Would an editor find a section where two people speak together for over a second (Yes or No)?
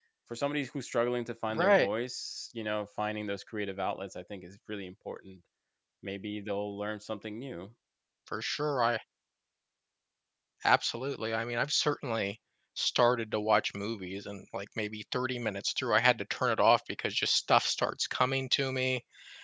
No